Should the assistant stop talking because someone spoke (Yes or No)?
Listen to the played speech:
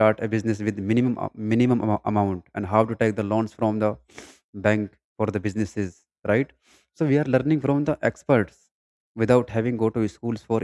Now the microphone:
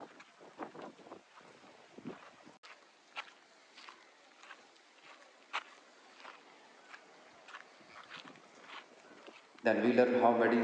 Yes